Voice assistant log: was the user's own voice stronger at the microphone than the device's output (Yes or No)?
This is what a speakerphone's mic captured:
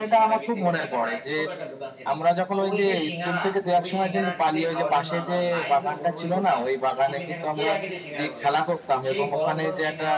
No